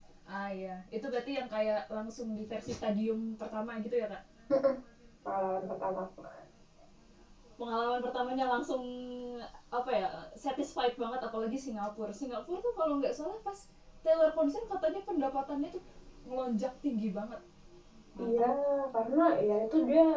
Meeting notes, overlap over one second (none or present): none